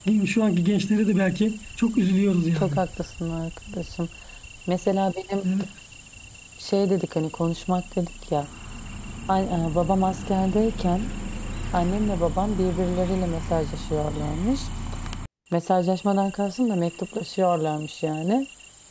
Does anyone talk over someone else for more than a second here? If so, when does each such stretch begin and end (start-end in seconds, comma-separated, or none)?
none